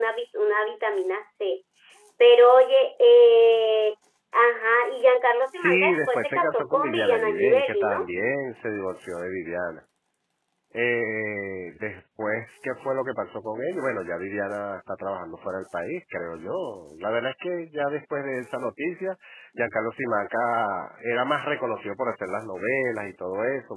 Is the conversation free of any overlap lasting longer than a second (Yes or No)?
No